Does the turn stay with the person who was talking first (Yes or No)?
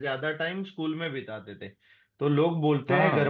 Yes